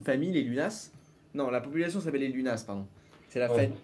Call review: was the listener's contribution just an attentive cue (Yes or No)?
Yes